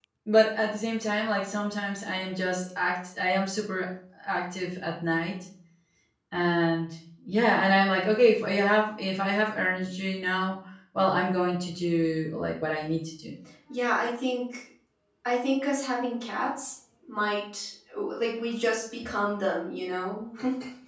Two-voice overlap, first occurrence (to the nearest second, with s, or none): none